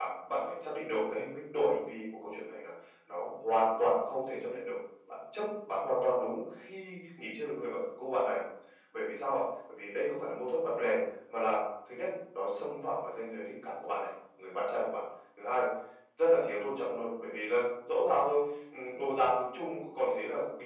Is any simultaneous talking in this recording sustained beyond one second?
No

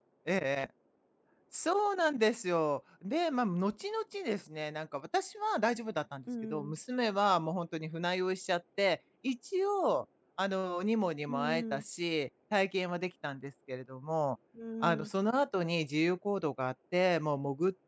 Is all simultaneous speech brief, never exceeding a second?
Yes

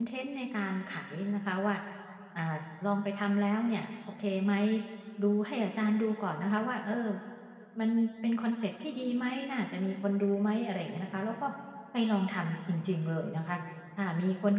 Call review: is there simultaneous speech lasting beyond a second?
No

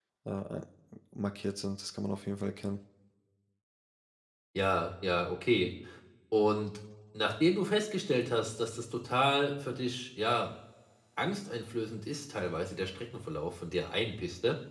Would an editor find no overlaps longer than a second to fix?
Yes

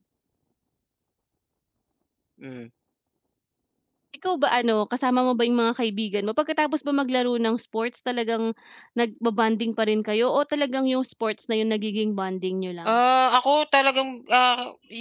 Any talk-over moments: No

